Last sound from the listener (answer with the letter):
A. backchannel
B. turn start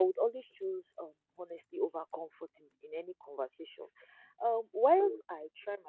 A